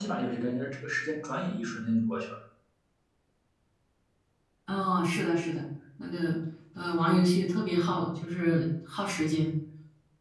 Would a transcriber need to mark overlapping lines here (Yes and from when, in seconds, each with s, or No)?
No